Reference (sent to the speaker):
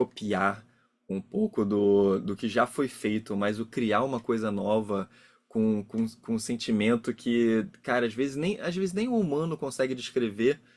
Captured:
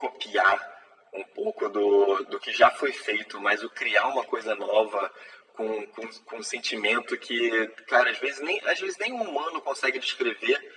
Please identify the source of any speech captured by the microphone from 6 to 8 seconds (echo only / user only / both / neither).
echo only